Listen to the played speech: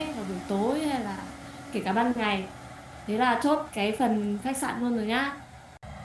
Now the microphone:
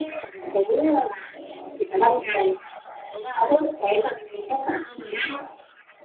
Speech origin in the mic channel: echo only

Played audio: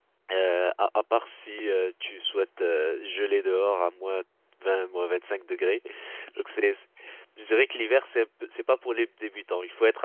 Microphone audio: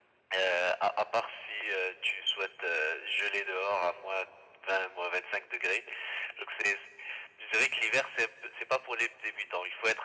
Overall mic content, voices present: echo only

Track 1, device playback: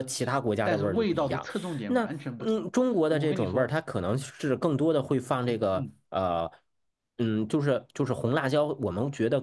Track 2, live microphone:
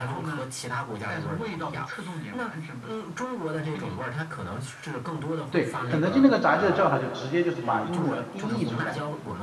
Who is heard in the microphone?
both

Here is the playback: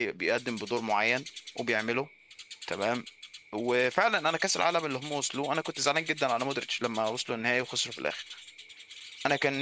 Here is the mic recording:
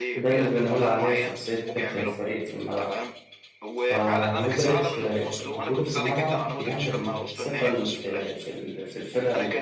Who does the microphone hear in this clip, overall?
both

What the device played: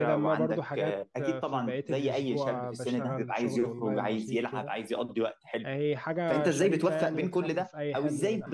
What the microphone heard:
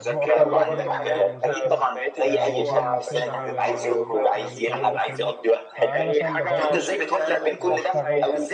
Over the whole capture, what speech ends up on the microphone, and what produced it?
both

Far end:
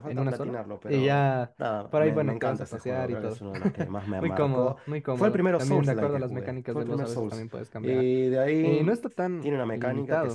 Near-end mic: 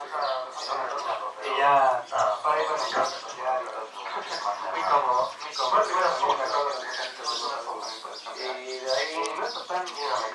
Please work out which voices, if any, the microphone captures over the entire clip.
echo only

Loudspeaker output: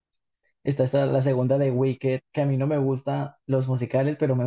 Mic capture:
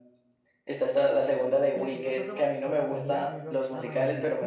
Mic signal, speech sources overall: both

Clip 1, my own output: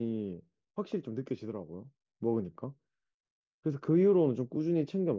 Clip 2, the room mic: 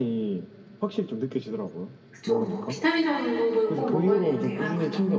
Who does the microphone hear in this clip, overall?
both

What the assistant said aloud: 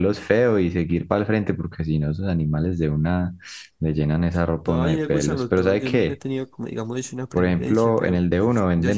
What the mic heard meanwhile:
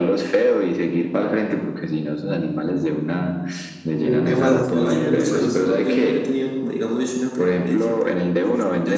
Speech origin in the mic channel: both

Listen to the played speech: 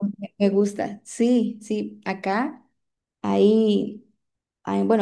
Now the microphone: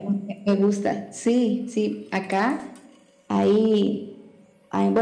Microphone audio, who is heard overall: echo only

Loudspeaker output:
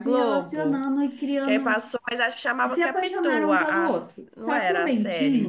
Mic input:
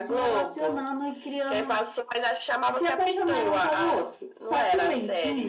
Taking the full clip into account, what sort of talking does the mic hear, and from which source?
echo only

